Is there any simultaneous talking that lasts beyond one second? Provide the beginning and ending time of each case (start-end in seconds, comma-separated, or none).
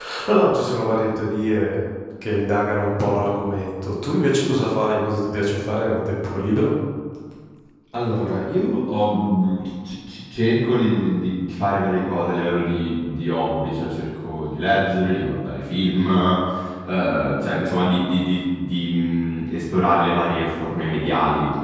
none